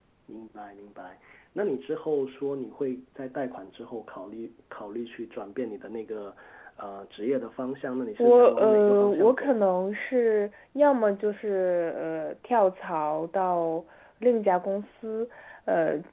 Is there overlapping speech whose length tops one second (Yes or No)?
Yes